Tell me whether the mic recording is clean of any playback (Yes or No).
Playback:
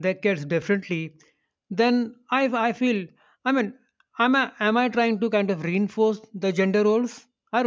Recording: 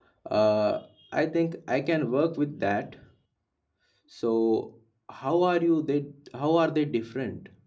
Yes